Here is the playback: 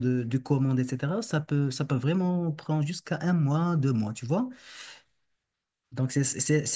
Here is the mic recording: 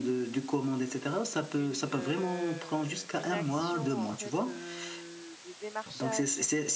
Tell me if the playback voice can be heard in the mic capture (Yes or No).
Yes